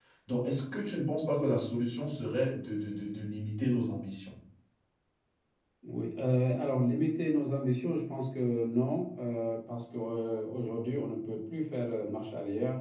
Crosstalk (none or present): none